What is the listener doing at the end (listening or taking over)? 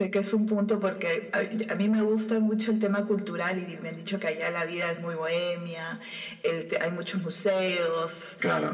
listening